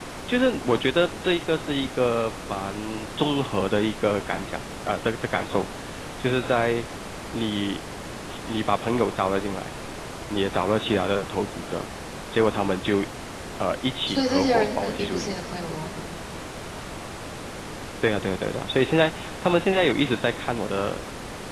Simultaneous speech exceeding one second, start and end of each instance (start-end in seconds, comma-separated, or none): 14.1-15.4